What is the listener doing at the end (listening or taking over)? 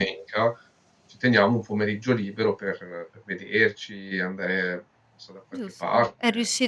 taking over